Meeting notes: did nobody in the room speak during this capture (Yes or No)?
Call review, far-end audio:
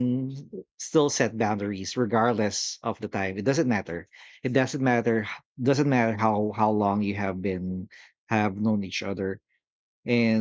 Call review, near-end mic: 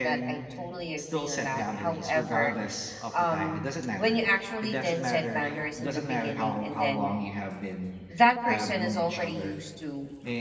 No